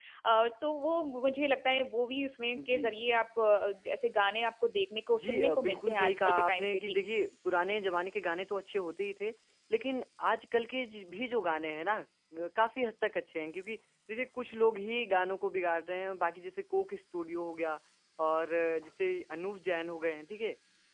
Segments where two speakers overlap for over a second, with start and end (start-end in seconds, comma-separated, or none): 5.1-7.0